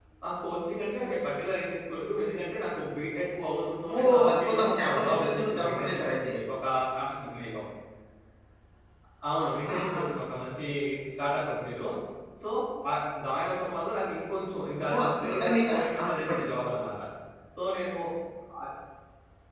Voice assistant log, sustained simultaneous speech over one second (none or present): present